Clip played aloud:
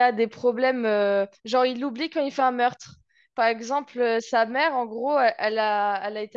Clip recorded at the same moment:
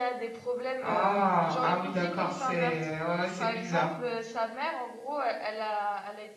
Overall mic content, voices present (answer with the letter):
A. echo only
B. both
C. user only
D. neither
B